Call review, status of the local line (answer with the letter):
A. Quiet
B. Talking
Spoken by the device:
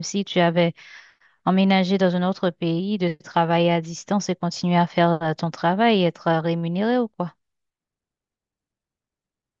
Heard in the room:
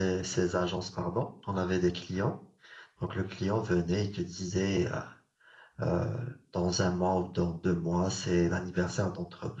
B